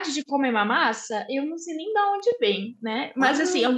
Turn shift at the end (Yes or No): No